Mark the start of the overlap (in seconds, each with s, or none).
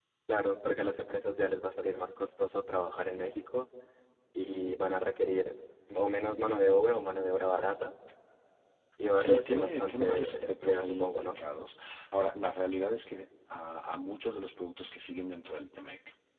9.1 s